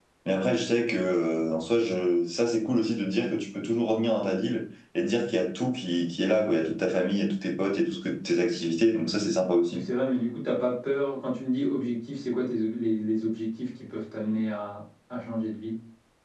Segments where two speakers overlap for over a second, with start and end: none

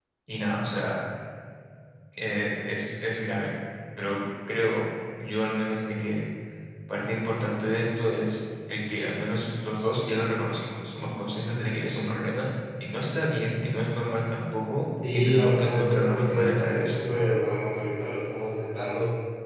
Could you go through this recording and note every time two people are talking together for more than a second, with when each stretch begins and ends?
15.1-16.9

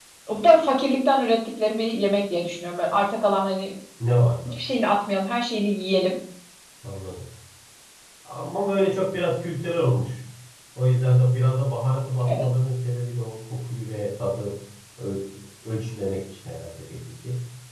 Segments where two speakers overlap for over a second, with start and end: none

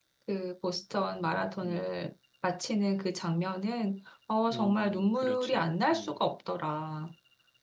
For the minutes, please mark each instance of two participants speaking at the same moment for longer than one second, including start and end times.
4.5-6.1

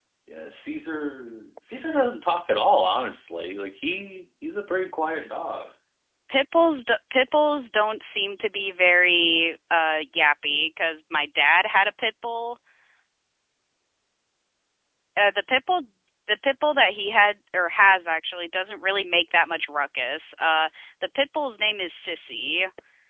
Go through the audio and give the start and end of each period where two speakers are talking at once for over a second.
none

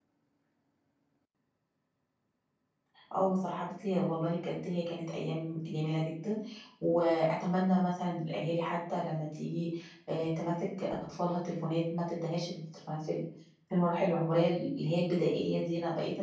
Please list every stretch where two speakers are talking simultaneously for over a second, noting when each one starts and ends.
none

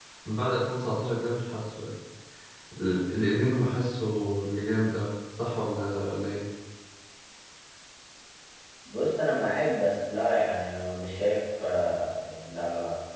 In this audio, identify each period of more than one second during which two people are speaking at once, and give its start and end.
none

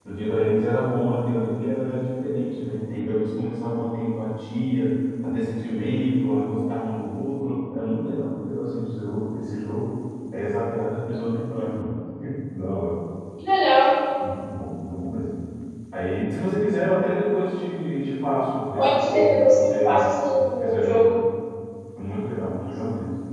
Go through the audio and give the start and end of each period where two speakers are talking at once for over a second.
18.8-21.2

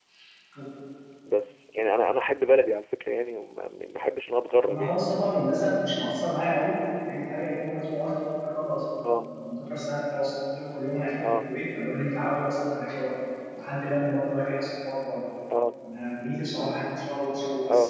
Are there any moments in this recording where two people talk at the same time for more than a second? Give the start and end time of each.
none

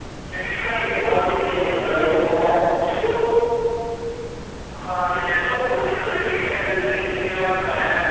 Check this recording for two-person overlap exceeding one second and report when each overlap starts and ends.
0.9-2.5

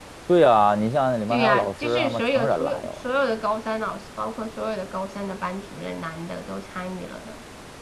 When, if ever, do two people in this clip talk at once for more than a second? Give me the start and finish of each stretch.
1.3-2.9

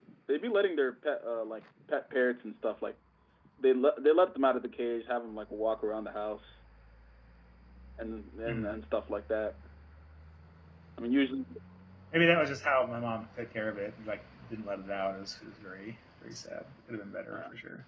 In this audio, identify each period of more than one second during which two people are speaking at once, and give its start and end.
none

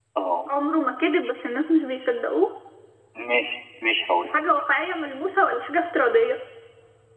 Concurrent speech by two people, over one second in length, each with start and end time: none

